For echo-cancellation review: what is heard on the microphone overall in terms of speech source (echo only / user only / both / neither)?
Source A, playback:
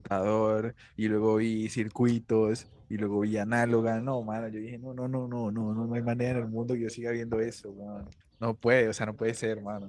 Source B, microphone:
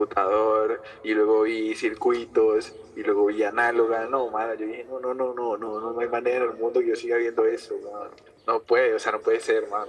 echo only